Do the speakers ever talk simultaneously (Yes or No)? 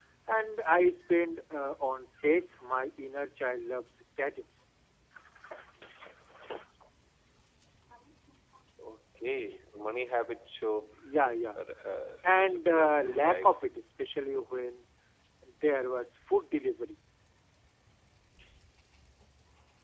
Yes